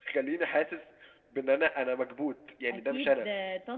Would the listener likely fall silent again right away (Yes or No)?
No